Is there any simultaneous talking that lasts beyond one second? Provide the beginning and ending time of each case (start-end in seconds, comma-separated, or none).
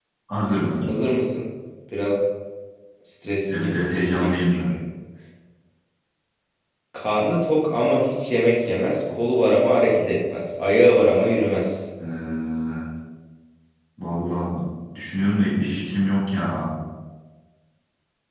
3.5-4.7